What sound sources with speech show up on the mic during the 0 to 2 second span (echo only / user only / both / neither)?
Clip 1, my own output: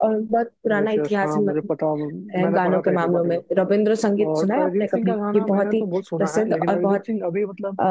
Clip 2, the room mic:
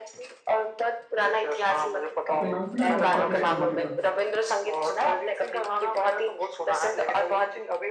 echo only